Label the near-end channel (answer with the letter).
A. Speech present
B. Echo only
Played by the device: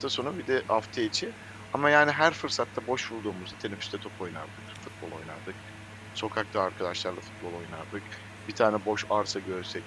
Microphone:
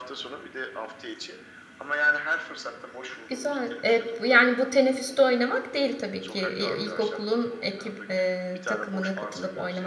A